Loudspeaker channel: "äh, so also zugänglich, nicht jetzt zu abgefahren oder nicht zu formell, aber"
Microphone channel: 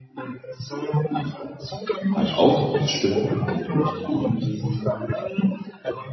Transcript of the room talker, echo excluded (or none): Art Aufbruchsstimmung und möchte irgendwie,